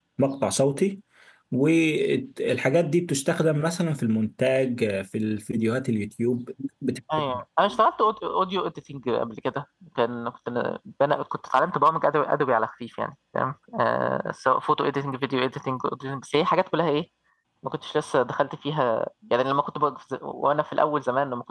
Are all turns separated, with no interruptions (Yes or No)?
Yes